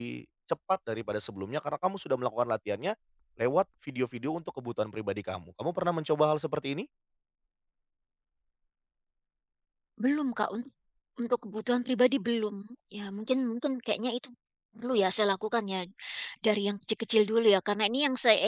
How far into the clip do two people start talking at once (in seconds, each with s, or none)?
none